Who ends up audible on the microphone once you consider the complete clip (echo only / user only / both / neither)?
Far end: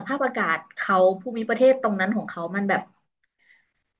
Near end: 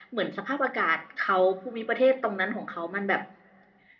echo only